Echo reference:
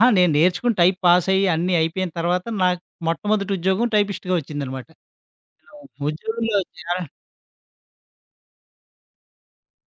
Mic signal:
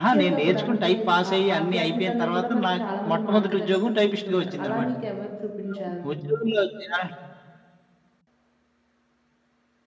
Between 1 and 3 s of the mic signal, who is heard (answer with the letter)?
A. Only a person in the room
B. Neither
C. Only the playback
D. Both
D